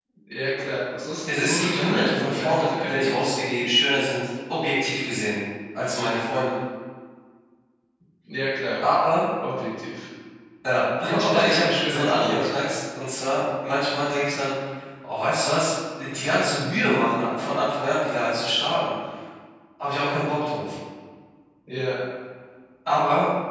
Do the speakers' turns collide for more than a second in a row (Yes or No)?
Yes